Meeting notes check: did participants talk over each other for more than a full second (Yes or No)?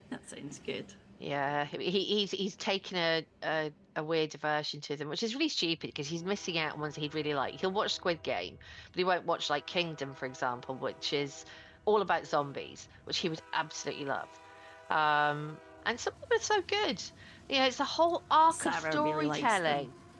Yes